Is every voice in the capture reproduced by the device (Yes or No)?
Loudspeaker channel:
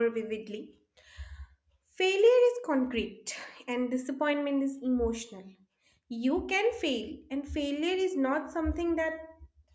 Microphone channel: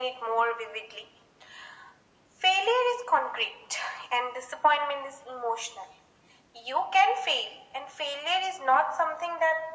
Yes